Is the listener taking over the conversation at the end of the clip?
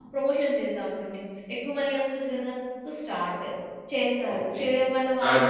Yes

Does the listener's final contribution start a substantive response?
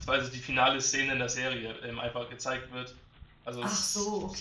Yes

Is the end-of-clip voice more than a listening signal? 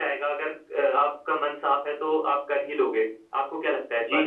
Yes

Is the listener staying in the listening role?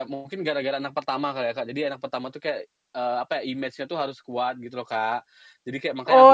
No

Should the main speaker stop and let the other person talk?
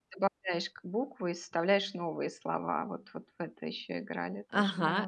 Yes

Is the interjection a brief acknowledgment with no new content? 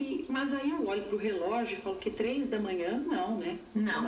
No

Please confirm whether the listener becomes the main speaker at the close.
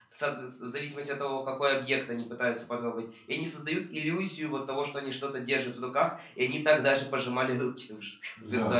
Yes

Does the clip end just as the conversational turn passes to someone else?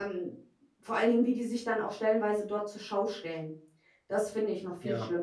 Yes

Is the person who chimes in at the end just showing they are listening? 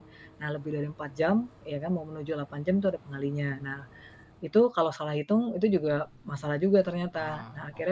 Yes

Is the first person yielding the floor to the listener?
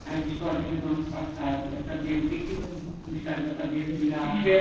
No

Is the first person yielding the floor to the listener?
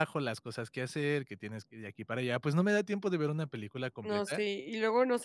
Yes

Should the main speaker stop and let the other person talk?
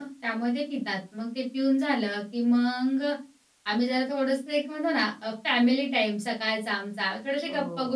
No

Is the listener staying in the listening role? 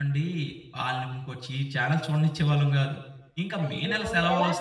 No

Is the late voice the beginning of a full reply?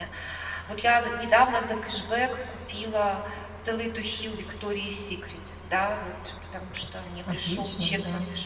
No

